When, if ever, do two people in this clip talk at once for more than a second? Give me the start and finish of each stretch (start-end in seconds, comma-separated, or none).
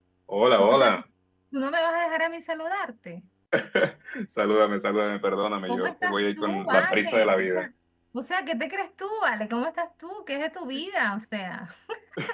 5.7-7.7